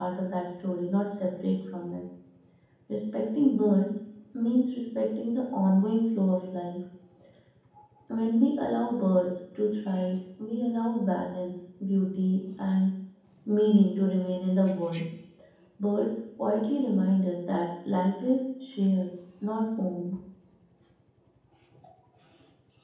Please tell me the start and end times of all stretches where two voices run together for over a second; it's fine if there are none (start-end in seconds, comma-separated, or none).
none